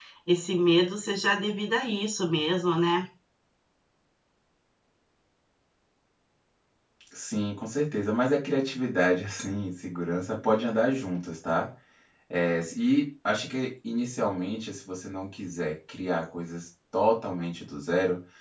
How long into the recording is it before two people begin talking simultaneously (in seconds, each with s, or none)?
none